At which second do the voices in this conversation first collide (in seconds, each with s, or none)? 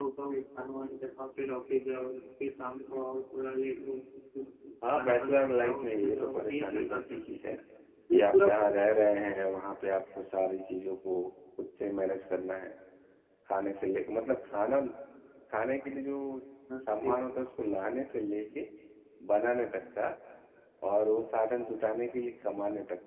4.9 s